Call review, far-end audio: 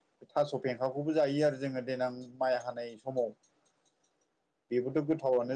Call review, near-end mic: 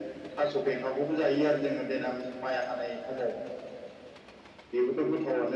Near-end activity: none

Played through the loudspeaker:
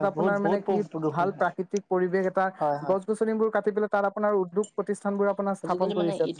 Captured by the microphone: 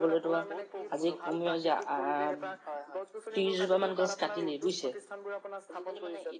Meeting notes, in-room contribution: present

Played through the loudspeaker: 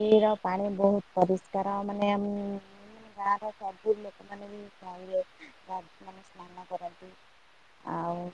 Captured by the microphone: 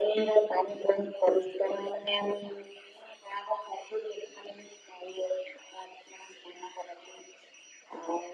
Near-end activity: none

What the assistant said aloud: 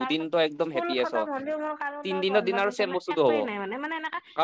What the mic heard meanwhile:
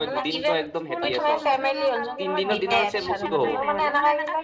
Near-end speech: present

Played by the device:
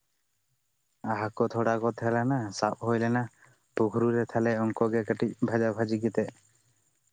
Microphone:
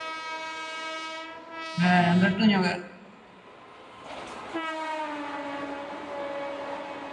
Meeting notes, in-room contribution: present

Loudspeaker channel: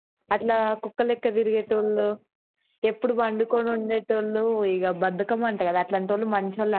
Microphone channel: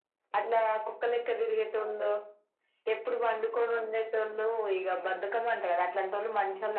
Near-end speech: none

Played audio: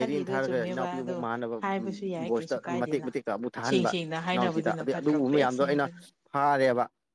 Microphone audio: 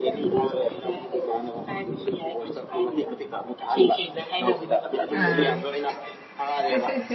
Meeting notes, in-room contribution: present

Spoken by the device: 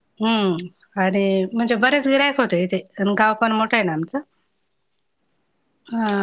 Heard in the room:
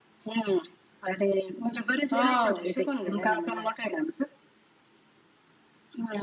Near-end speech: present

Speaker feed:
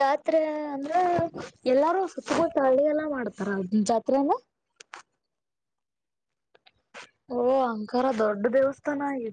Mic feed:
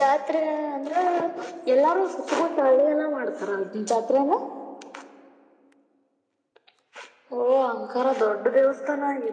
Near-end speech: none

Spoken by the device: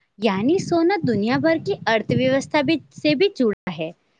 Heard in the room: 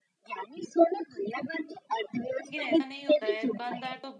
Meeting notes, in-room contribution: present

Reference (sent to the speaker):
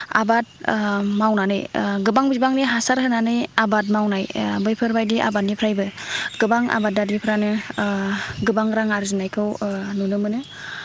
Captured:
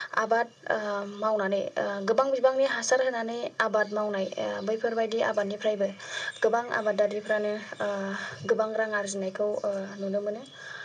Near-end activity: none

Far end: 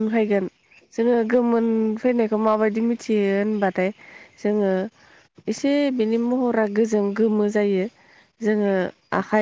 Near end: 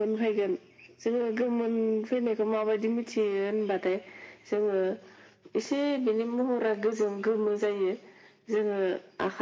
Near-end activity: none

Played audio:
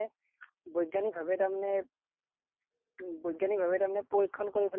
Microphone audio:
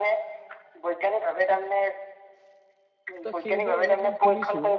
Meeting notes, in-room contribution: present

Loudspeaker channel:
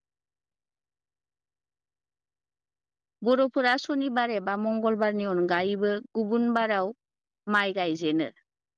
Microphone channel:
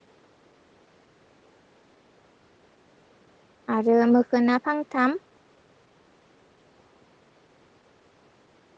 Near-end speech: present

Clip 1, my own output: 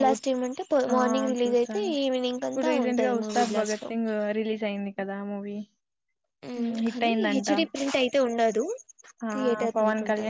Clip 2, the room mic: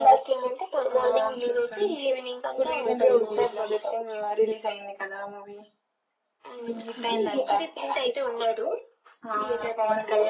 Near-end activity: none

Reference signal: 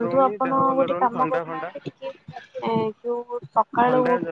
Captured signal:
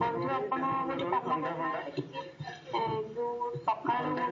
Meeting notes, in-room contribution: none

